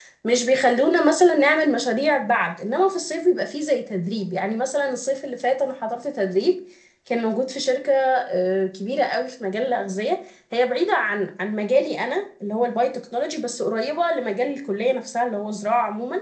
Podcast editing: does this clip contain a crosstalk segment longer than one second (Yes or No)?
No